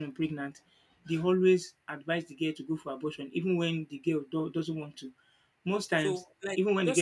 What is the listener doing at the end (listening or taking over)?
taking over